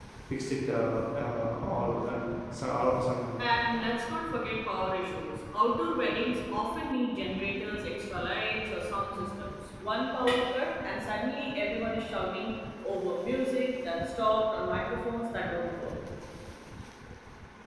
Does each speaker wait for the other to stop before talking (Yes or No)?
Yes